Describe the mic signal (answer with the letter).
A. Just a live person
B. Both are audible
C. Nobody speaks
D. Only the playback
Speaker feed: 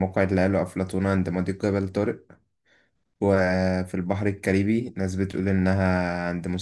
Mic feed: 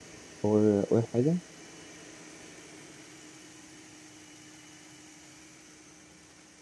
A